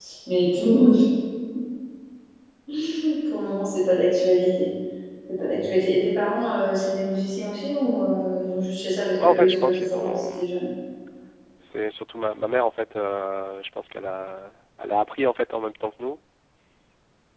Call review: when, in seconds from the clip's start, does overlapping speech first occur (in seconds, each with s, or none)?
9.1 s